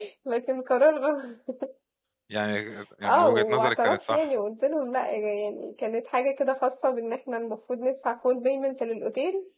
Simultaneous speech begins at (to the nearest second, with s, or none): 3 s